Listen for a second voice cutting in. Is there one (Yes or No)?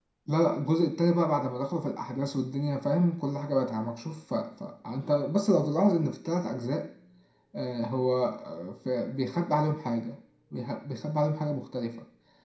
No